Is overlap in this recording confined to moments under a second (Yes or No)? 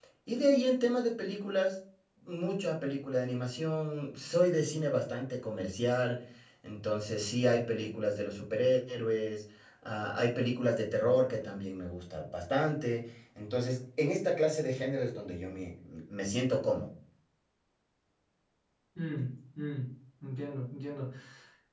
Yes